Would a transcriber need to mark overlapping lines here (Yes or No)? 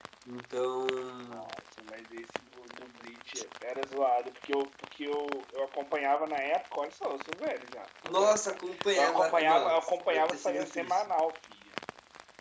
Yes